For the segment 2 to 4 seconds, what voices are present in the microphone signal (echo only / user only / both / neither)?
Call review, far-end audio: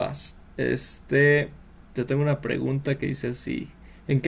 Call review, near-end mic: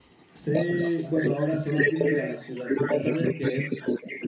both